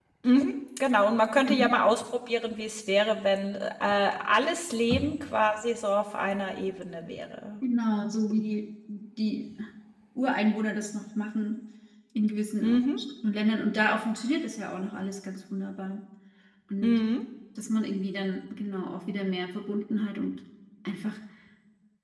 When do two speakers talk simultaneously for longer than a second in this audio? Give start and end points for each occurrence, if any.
none

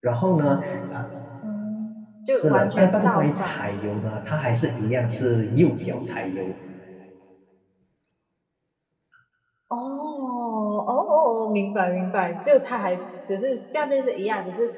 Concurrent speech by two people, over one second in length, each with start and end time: 2.4-3.7

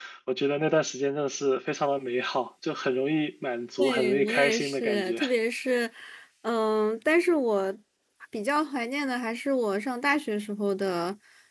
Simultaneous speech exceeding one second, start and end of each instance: 3.8-5.2

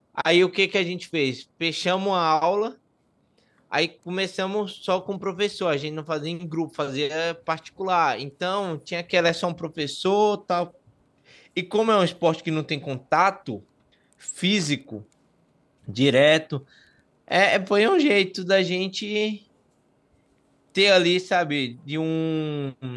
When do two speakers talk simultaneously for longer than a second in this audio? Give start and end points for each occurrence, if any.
none

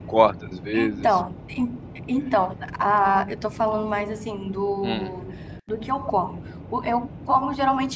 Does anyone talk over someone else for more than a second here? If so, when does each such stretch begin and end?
none

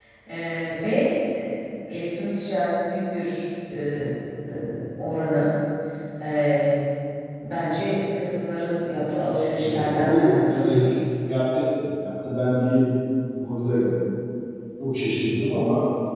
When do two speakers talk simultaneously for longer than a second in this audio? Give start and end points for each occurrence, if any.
9.6-10.8

